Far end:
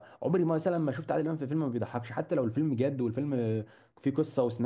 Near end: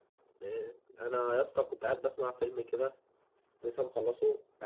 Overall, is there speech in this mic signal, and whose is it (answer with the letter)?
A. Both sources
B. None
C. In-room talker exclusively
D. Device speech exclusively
C